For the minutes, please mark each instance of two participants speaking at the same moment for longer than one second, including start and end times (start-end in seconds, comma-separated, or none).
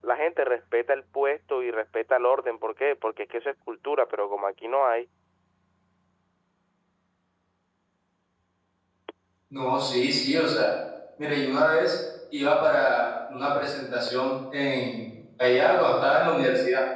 none